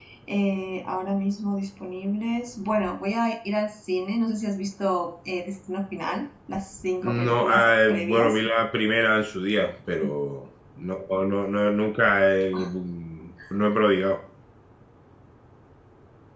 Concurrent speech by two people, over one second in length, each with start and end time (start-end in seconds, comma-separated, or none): 7.0-8.4